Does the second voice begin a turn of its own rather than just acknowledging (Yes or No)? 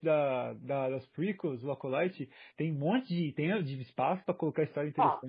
Yes